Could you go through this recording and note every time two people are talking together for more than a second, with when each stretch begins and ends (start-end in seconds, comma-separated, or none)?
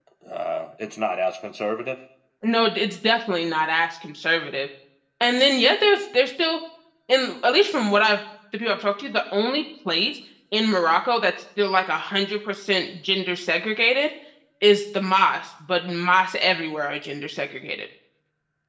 none